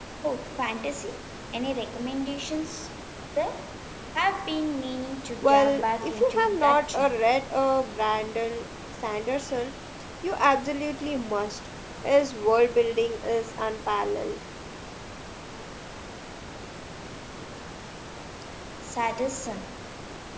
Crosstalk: present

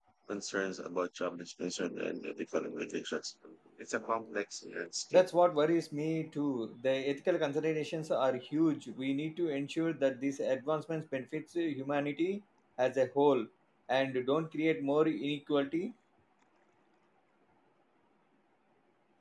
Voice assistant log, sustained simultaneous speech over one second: none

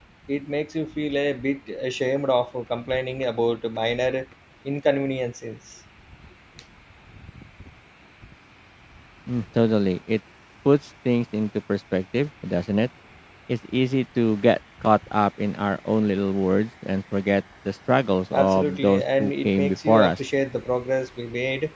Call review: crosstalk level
present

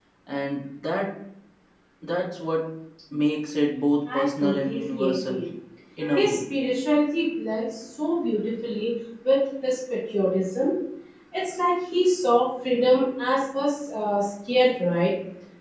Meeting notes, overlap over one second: present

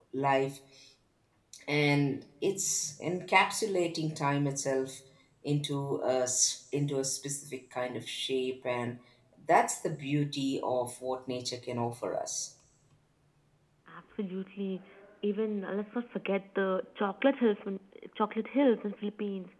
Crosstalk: none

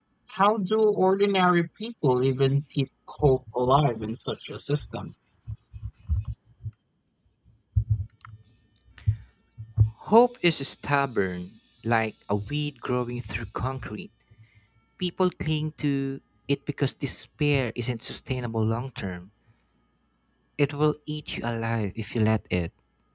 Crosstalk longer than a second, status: none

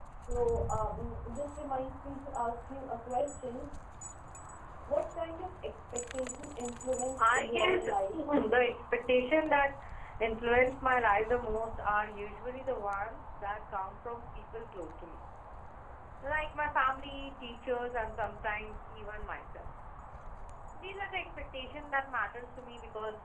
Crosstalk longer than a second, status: present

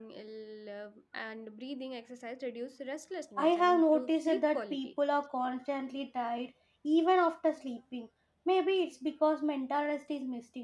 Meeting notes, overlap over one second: present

